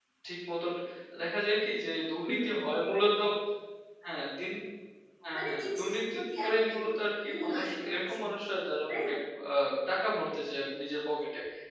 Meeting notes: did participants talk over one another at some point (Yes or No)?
Yes